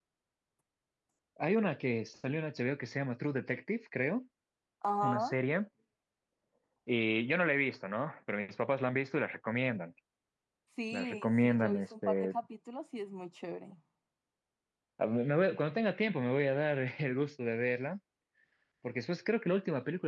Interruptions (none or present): present